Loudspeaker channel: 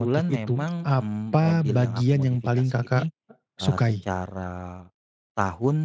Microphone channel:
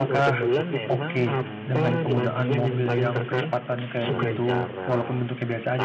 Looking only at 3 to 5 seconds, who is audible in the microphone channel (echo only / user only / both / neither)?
both